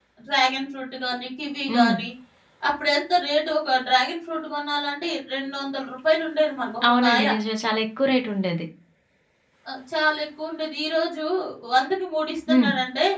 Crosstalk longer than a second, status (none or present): none